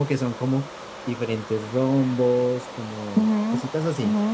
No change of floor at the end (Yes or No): No